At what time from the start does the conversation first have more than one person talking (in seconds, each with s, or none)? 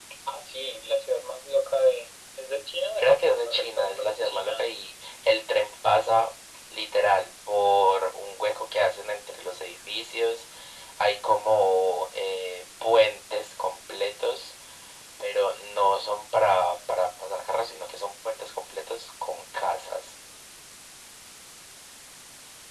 3.0 s